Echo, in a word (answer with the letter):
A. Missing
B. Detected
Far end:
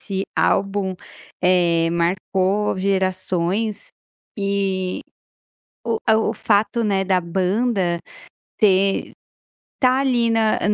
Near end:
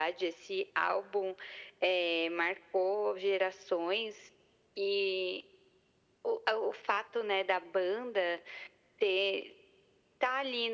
B